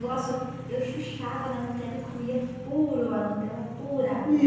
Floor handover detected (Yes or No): Yes